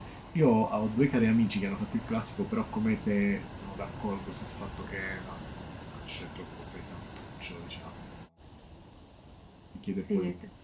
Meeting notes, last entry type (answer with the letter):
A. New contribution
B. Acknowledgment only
A